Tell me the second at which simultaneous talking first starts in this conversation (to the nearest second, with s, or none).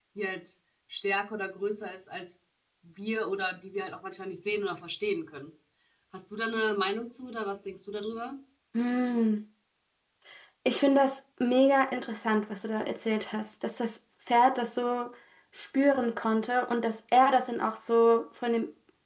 none